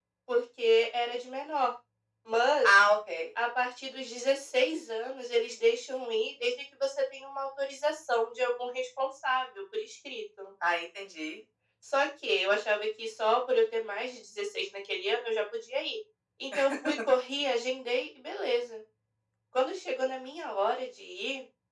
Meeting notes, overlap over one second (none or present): none